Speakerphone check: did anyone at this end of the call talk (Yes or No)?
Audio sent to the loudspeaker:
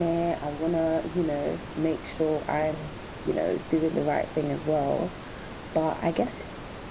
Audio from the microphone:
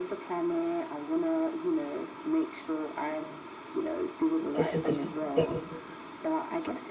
Yes